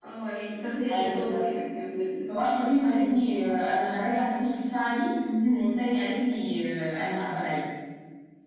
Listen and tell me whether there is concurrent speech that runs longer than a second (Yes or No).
No